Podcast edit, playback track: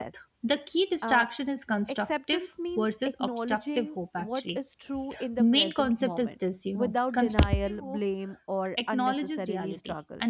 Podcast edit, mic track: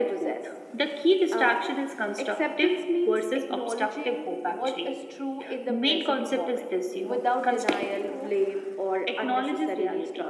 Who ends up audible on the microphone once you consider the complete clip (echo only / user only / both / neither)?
echo only